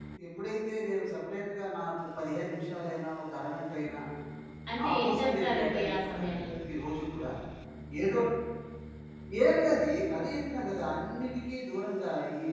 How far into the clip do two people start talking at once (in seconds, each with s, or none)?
4.8 s